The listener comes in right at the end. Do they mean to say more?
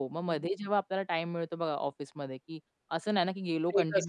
No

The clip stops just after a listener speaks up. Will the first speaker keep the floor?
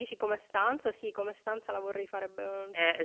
No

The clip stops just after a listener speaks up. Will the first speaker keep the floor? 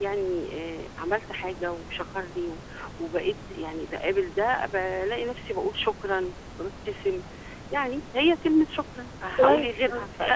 No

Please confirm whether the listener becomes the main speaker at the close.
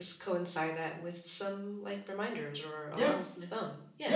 Yes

